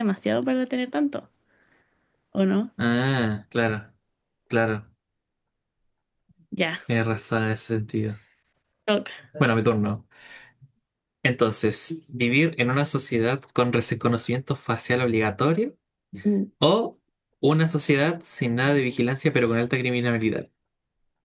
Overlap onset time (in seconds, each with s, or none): none